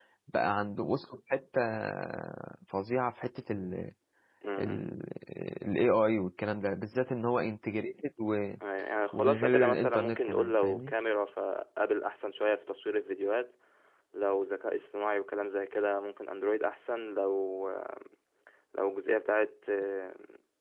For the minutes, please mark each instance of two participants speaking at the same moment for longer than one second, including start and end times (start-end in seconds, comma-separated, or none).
9.1-10.9